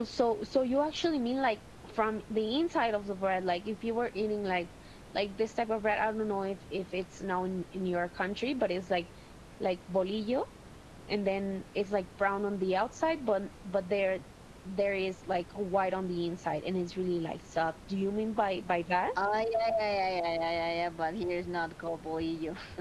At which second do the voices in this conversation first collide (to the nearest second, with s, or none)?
none